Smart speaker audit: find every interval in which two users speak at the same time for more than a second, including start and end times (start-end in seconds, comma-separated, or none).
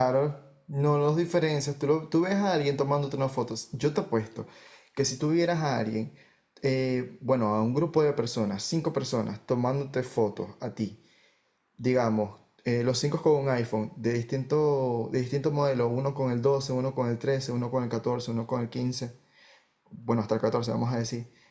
none